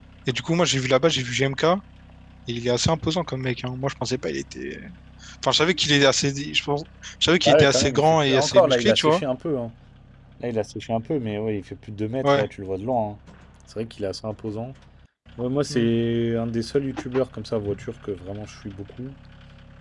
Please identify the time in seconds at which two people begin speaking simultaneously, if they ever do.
7.4 s

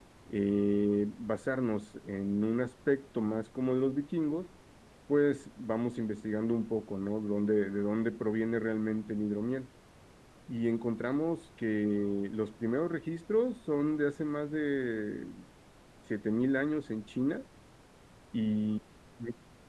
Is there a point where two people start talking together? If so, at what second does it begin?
none

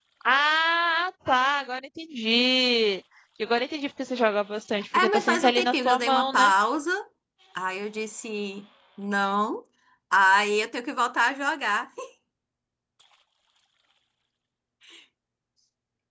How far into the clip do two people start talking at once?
4.9 s

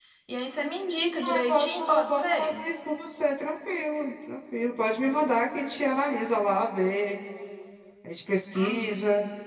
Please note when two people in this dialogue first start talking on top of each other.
1.2 s

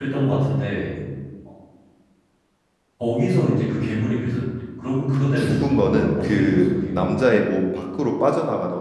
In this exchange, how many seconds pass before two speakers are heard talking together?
5.3 s

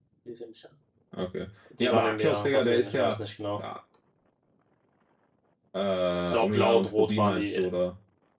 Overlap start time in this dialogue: 1.8 s

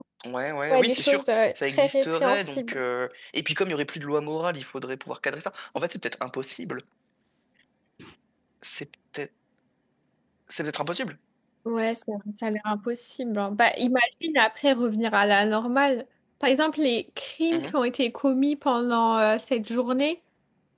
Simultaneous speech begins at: 0.7 s

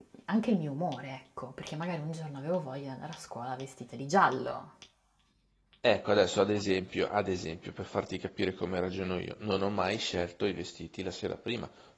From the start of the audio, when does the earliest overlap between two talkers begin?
none

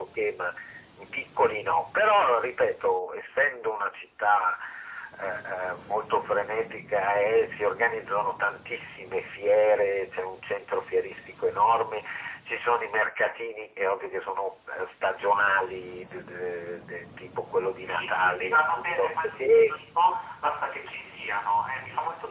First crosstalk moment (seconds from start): 17.8 s

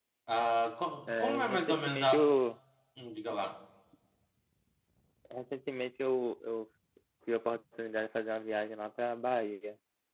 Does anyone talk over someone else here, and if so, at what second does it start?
1.1 s

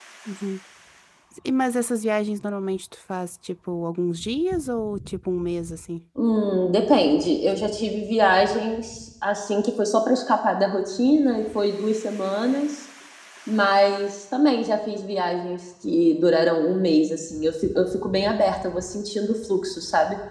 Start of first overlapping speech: none

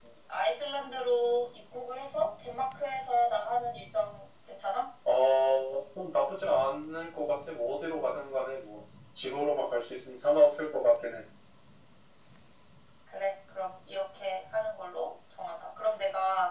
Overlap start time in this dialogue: none

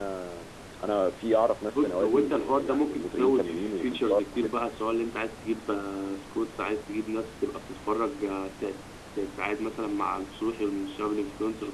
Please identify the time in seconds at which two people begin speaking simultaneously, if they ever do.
1.7 s

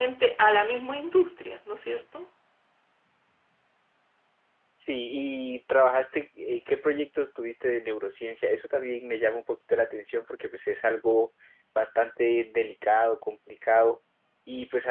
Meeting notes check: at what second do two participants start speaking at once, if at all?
none

